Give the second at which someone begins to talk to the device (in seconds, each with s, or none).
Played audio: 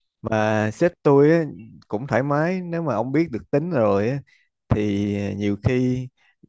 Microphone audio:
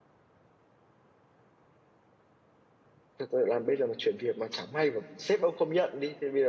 3.2 s